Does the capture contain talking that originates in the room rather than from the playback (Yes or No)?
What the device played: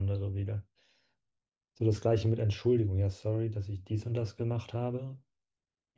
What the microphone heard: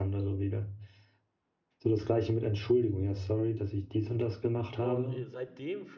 Yes